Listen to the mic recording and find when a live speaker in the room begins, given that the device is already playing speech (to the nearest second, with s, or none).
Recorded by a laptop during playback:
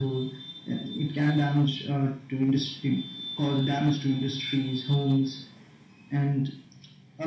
none